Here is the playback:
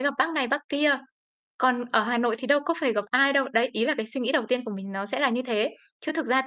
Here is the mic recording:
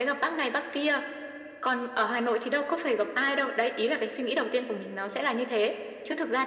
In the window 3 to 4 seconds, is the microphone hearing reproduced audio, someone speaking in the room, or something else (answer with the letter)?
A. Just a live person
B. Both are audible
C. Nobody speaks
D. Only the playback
D